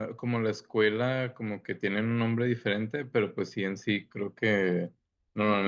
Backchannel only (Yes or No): Yes